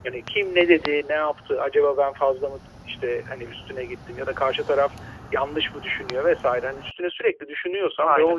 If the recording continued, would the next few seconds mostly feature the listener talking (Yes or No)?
No